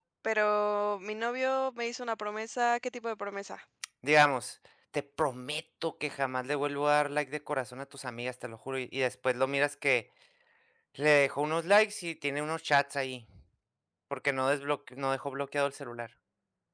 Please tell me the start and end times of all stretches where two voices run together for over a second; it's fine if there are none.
none

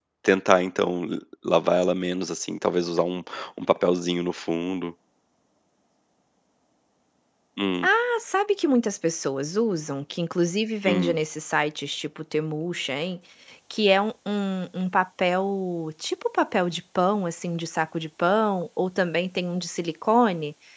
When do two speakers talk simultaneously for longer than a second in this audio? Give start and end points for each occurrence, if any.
none

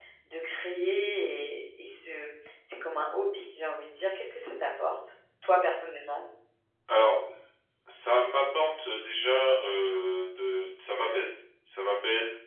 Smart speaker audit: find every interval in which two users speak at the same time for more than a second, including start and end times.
none

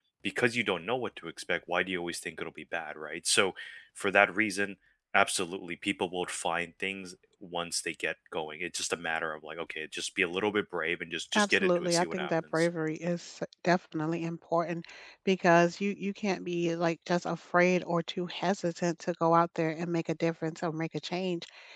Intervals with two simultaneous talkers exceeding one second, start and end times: 11.3-12.7

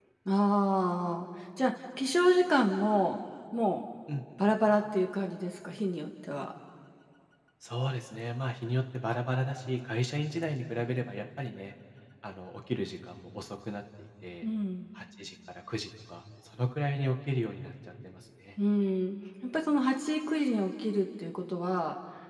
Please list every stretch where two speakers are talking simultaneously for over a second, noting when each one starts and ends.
none

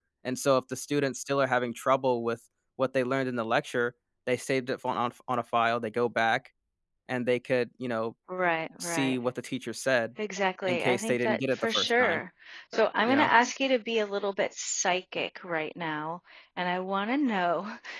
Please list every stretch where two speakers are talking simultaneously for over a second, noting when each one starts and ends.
10.7-12.2

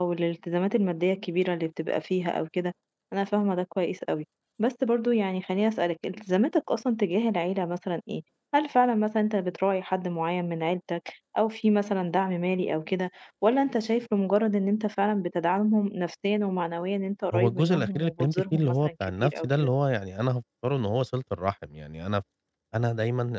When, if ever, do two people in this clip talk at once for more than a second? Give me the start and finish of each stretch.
17.3-19.7

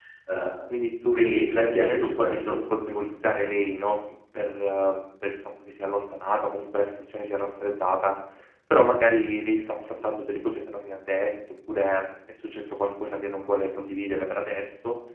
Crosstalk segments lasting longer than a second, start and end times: 1.1-2.6

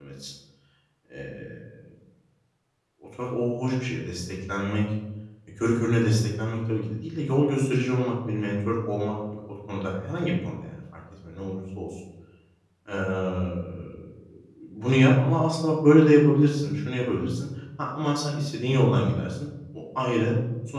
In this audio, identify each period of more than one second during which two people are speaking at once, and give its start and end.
none

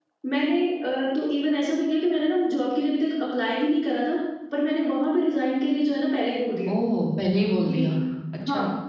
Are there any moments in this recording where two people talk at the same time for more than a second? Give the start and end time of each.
none

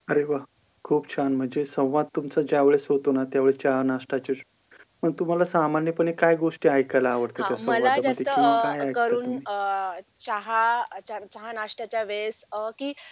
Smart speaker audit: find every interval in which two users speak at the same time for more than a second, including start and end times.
7.4-9.4

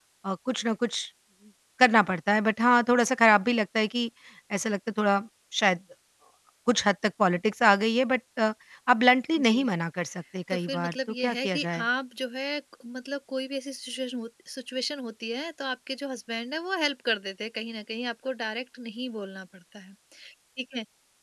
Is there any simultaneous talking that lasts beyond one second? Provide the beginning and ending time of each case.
10.5-11.8

